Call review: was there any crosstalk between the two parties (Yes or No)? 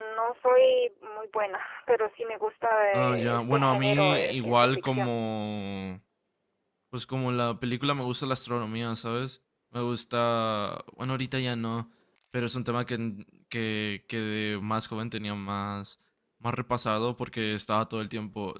Yes